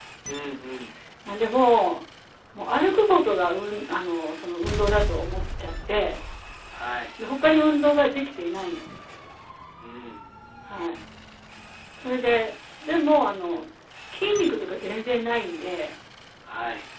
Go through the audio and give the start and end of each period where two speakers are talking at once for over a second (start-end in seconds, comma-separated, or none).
none